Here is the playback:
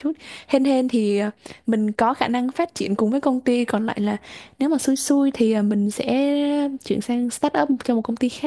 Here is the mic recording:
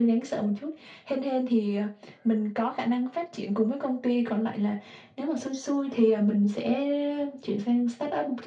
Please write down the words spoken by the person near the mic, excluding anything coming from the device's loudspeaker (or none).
none